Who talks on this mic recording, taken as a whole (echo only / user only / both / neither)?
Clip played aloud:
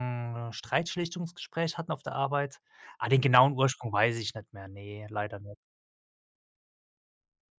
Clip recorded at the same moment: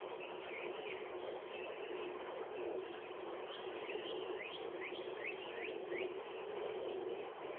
neither